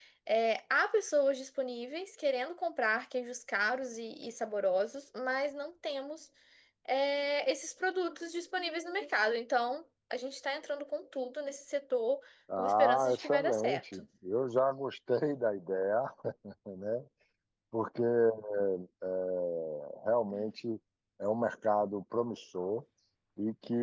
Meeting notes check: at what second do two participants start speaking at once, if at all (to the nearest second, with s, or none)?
12 s